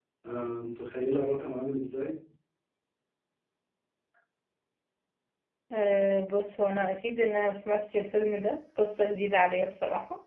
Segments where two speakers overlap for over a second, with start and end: none

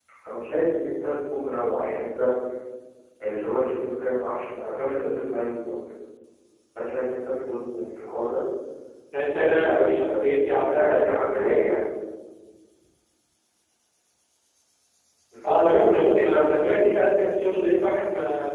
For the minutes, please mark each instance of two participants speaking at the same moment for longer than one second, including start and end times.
9.4-11.6, 15.4-17.4

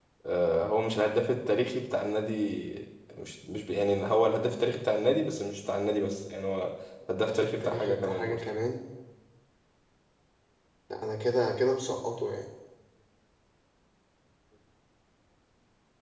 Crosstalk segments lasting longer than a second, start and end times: 7.2-8.4

